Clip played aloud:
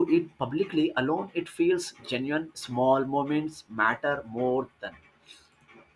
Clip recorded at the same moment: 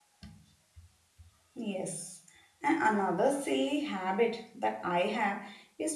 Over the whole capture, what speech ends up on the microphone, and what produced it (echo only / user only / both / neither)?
user only